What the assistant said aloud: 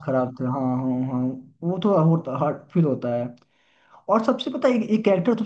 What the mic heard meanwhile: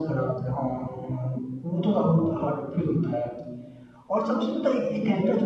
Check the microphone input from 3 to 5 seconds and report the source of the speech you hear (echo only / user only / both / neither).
echo only